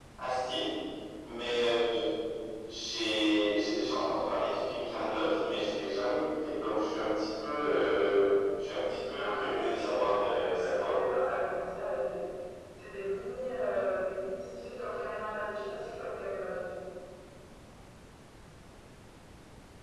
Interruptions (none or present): present